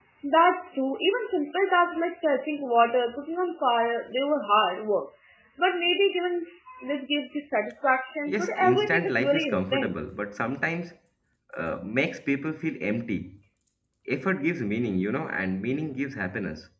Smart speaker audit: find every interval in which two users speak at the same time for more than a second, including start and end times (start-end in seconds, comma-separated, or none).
8.3-9.9